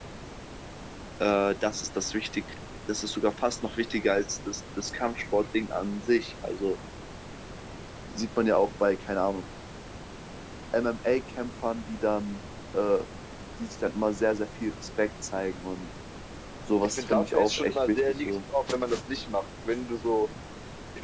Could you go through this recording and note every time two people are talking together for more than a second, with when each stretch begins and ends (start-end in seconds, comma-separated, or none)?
16.8-18.4